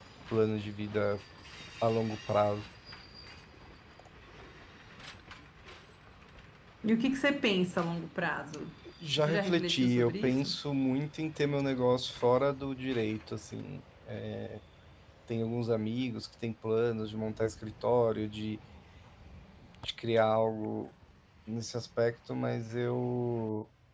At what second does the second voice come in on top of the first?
9 s

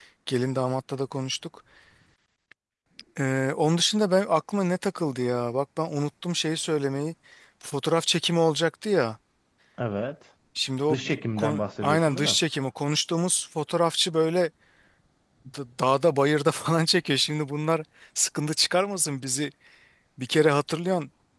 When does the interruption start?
11 s

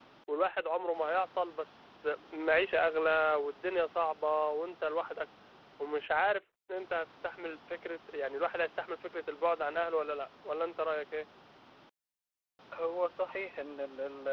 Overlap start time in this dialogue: none

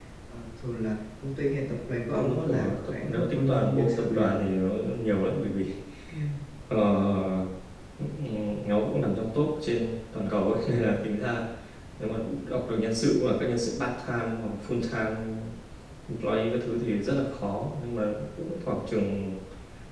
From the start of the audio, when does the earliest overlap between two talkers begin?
2 s

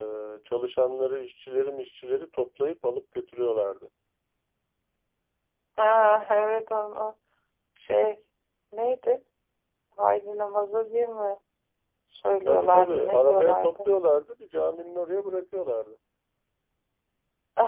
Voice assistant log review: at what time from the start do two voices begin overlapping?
12 s

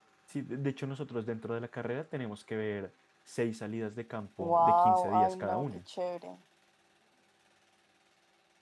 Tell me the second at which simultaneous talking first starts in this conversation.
4 s

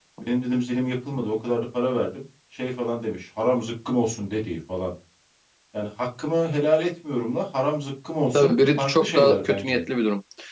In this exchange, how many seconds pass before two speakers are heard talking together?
8 s

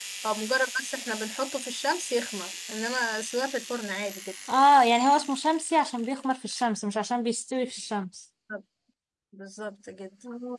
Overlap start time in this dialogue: none

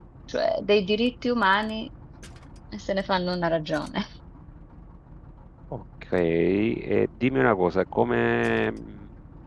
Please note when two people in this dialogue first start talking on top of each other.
none

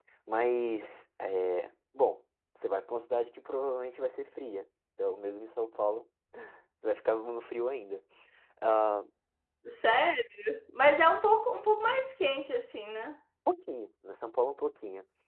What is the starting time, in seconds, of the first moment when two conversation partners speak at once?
none

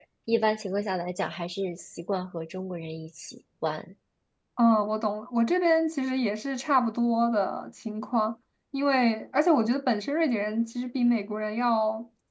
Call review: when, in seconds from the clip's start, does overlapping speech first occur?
none

